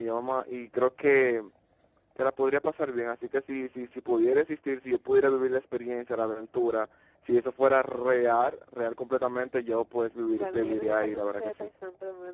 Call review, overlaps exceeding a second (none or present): present